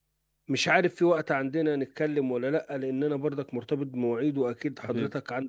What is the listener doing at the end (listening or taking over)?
listening